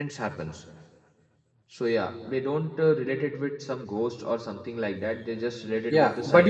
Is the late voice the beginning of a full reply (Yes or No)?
Yes